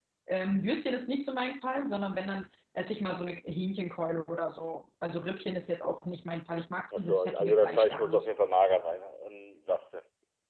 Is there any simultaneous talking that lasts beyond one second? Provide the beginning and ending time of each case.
6.9-8.3

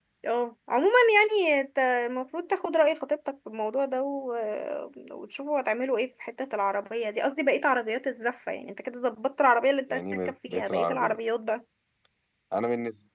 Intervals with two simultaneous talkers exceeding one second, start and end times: 9.9-11.2

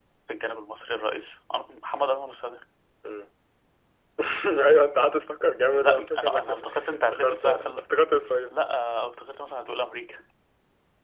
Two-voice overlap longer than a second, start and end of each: 5.8-7.9

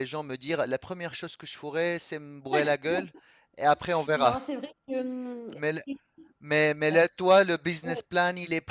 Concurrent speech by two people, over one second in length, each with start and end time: none

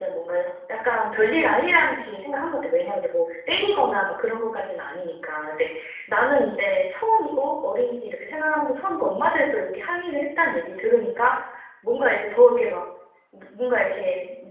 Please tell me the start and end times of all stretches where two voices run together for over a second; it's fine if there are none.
none

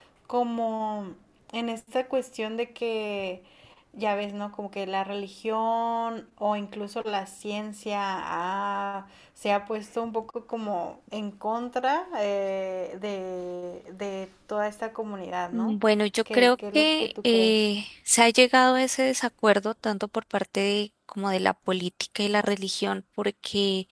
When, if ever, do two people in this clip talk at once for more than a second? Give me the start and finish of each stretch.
16.3-17.5

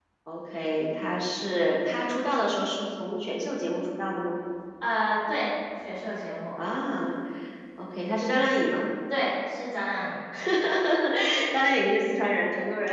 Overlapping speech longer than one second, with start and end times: none

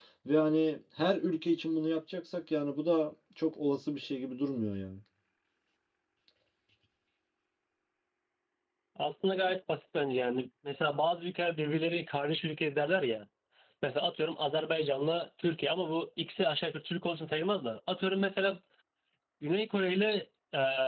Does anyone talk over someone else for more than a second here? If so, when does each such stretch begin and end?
none

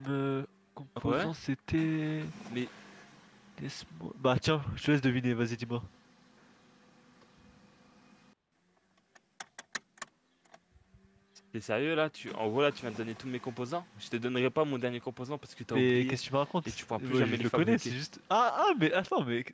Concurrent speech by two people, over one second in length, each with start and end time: 16.7-17.9

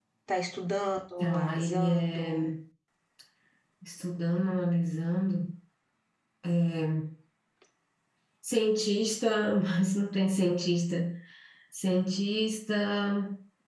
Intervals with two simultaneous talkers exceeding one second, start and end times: 1.2-2.5

